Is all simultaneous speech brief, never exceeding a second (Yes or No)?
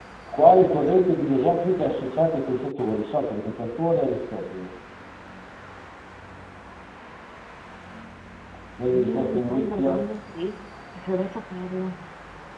No